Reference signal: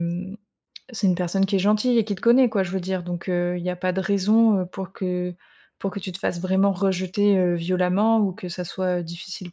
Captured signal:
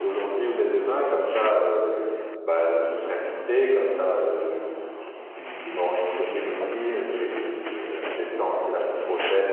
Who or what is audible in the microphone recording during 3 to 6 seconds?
user only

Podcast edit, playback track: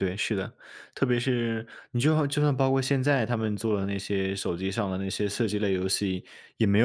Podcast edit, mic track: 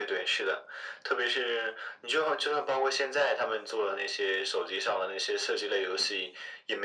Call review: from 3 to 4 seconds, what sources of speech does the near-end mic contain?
echo only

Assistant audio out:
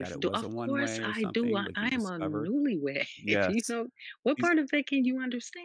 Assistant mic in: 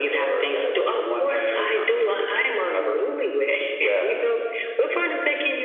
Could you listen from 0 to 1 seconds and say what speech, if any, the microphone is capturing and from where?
echo only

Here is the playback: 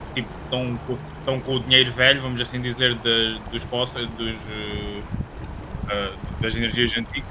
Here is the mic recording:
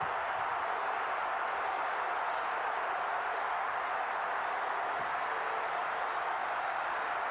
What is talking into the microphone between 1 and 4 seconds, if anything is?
neither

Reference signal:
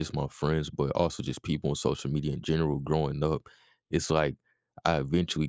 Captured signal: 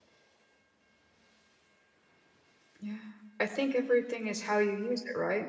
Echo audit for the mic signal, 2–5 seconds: user only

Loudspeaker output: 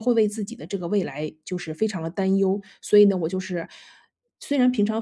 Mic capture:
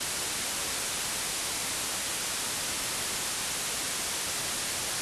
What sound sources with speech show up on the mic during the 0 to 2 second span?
neither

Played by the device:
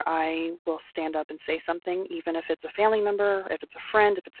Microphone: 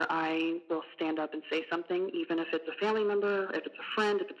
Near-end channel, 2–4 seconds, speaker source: echo only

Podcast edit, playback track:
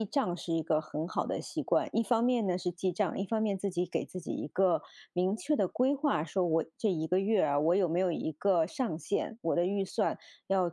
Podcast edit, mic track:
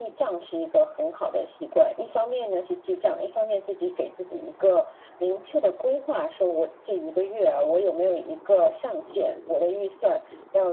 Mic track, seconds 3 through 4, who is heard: echo only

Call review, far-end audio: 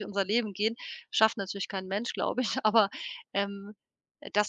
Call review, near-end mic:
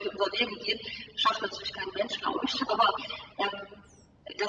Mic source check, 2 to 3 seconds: echo only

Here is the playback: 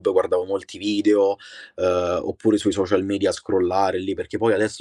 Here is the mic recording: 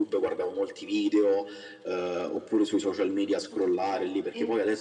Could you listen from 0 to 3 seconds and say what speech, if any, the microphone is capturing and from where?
echo only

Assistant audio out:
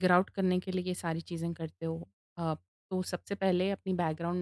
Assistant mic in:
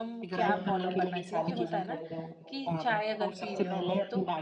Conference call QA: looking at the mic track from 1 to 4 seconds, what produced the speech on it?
both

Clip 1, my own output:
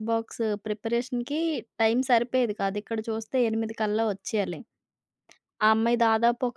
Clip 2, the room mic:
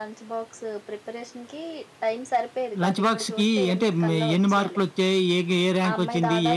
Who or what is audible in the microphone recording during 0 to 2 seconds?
echo only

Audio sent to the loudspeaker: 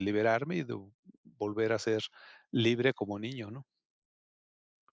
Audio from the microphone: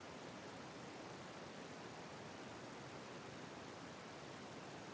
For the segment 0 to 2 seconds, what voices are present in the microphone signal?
neither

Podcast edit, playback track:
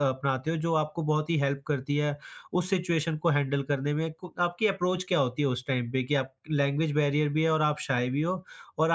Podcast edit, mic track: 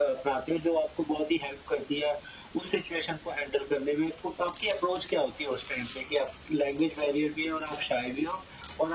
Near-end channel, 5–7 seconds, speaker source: echo only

